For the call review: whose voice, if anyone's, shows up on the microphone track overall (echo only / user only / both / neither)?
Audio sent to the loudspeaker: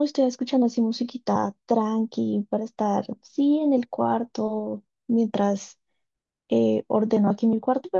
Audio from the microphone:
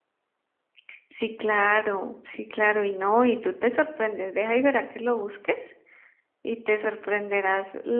user only